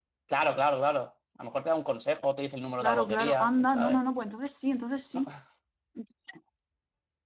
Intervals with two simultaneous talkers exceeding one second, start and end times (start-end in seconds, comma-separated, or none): 2.8-4.0